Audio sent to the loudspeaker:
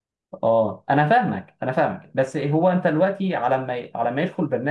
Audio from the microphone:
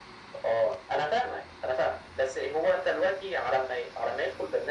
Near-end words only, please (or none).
none